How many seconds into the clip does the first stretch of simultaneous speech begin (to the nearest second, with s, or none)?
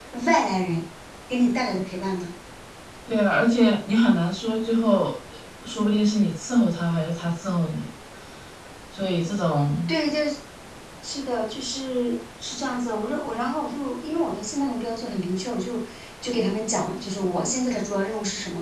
none